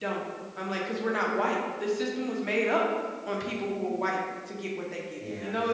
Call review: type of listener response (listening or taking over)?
taking over